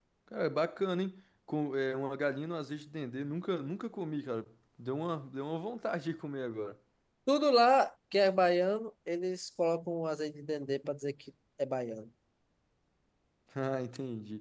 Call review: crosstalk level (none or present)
none